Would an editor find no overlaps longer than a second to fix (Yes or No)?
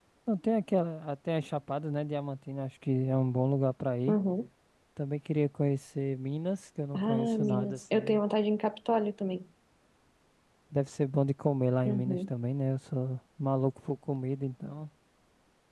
No